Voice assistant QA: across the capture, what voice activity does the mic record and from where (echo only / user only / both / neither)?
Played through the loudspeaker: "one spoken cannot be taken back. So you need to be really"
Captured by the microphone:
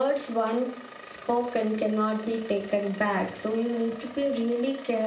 echo only